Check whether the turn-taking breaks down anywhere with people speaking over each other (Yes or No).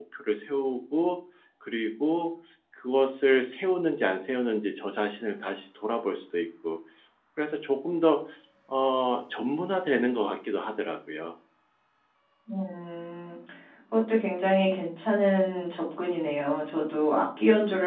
No